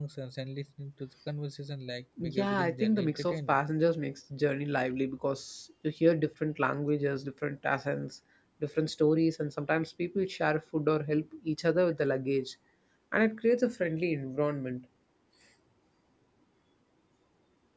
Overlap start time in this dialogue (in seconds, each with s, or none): 2.2 s